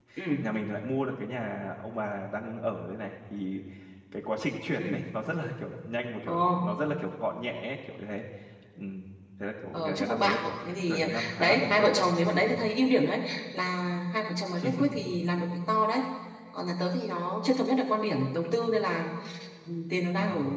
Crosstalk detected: Yes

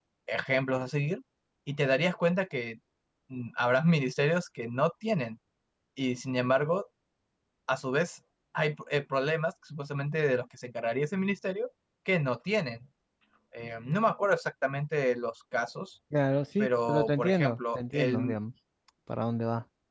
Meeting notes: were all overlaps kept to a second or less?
No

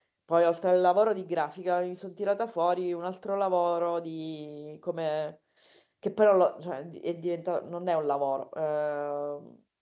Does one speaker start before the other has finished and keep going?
No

